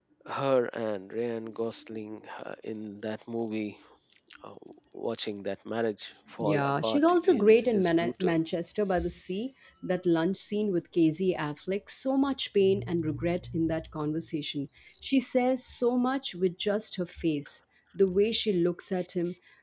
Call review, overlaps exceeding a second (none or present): present